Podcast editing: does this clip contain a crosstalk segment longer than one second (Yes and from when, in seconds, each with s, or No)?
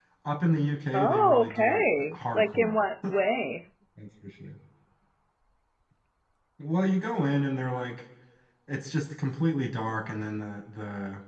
Yes, from 0.9 s